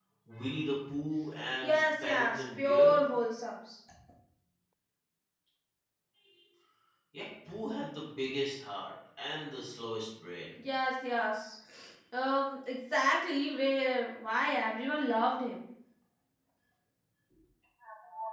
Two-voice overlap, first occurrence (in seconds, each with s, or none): 1.6 s